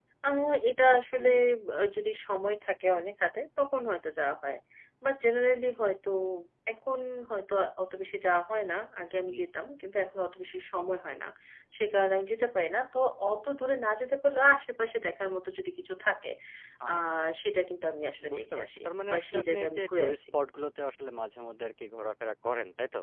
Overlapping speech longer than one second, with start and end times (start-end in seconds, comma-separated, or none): 18.3-20.2